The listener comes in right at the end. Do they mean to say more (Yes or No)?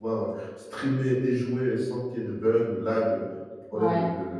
Yes